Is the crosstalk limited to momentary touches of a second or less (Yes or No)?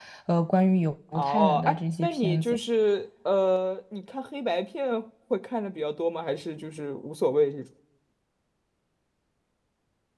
No